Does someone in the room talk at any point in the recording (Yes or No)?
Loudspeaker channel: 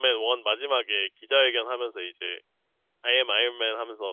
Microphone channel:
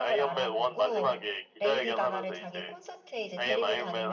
Yes